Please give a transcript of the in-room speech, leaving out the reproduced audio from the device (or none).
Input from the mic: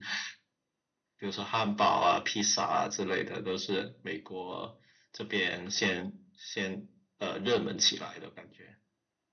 none